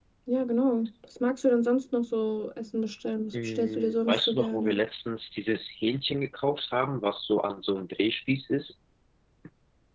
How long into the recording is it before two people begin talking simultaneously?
3.3 s

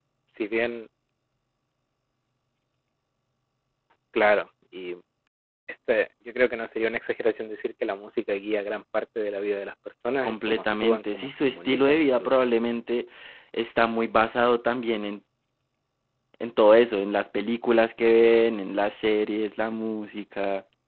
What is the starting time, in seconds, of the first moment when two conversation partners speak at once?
10.2 s

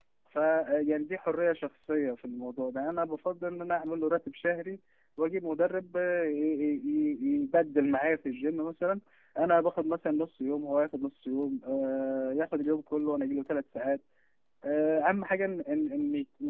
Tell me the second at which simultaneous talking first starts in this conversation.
none

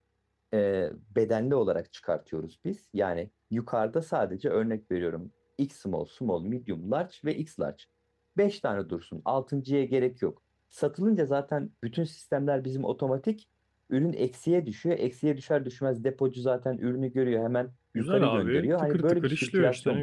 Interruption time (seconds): 18.0 s

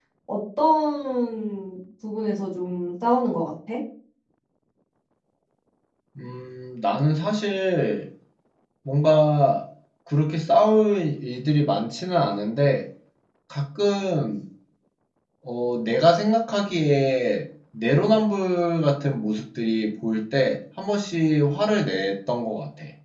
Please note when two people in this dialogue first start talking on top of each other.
none

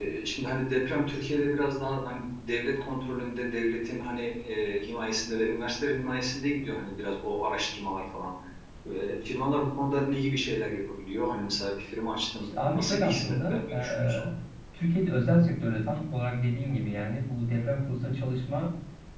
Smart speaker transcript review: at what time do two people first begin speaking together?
12.4 s

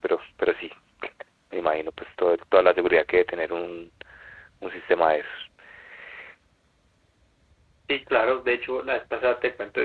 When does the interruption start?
none

